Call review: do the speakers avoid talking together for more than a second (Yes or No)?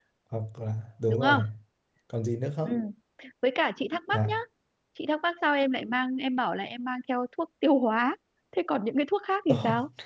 Yes